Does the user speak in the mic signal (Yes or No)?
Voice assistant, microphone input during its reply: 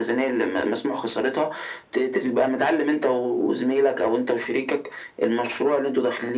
No